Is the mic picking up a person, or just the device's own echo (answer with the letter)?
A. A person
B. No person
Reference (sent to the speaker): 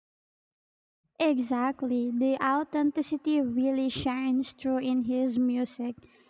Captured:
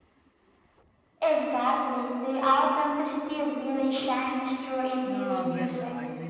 A